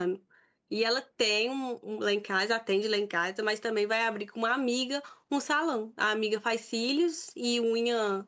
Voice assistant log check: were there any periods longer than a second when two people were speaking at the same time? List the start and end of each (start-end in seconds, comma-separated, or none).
none